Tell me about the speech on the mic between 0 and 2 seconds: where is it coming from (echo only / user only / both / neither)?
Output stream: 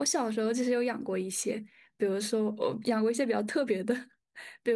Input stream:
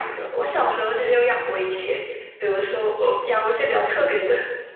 echo only